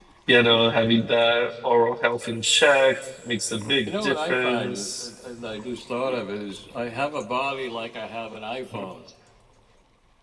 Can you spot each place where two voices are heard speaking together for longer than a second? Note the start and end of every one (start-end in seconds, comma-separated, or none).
3.9-5.1